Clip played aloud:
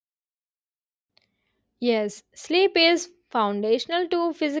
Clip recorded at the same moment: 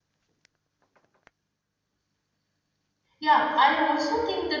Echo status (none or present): none